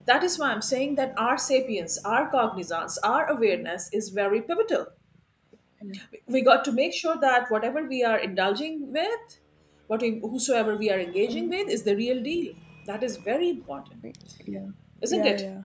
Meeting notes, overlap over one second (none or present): none